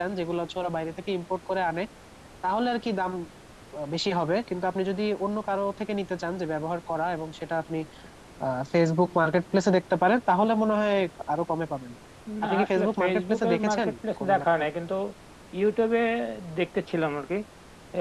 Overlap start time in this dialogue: 12.4 s

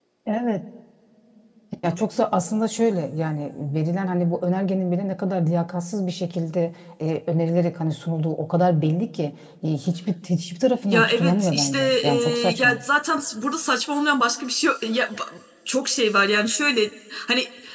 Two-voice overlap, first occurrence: 10.9 s

